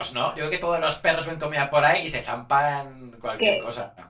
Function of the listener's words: taking over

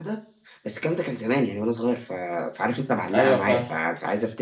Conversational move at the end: listening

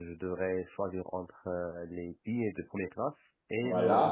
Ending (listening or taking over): taking over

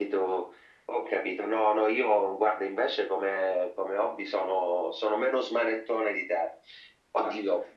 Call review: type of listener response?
listening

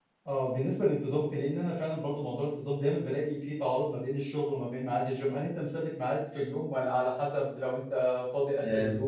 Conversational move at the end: taking over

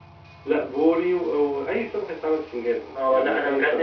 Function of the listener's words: taking over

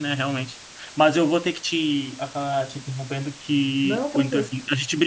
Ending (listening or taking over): listening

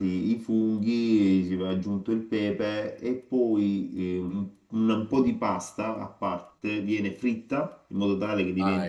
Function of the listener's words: listening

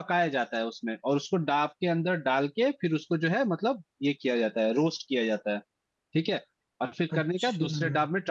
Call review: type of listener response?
listening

